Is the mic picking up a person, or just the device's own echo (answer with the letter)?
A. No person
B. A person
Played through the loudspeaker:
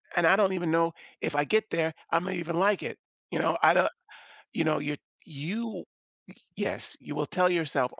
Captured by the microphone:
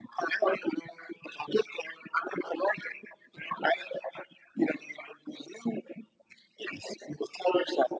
A